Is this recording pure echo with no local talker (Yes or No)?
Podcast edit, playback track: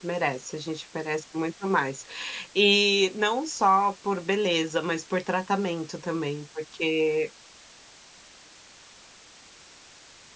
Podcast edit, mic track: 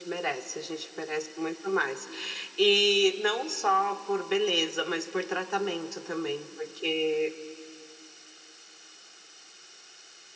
Yes